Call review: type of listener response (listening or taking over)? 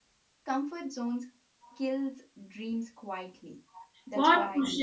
taking over